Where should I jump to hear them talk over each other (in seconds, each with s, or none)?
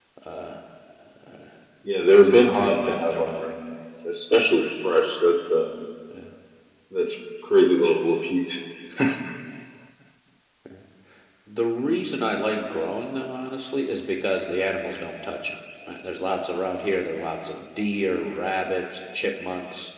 2.2 s